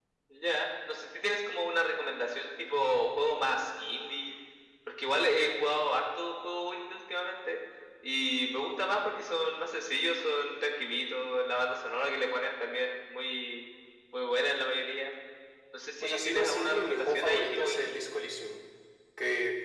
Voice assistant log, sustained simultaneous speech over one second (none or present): present